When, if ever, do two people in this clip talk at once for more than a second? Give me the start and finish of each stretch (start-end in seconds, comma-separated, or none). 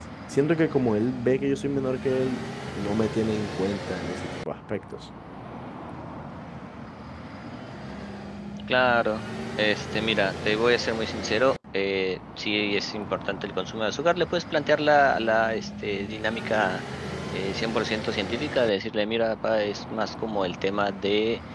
none